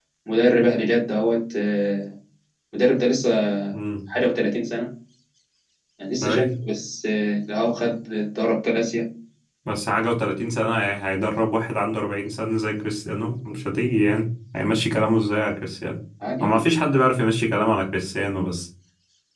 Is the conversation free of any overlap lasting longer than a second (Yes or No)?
Yes